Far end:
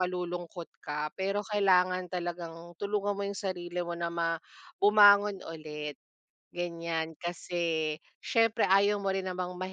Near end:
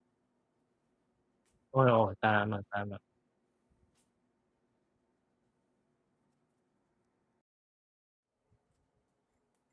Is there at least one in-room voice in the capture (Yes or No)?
Yes